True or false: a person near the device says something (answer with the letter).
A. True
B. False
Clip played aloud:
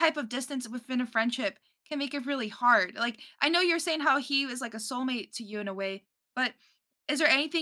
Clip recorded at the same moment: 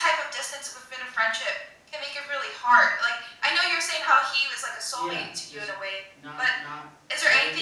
A